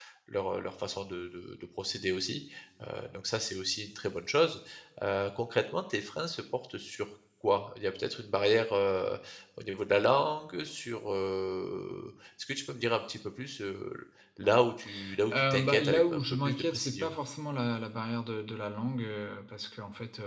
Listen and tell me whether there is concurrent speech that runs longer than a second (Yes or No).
Yes